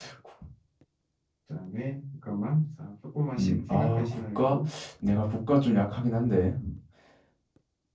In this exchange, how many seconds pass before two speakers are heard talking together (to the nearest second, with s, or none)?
3 s